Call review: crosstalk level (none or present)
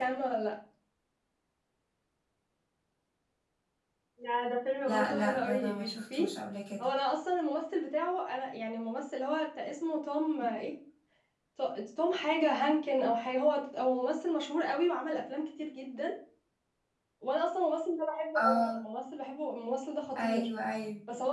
present